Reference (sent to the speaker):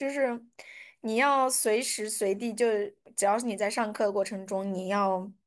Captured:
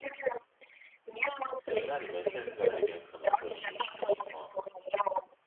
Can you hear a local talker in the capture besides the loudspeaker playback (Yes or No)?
Yes